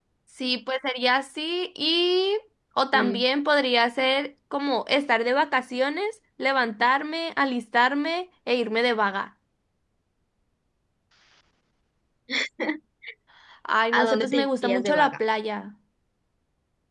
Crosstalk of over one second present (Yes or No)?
Yes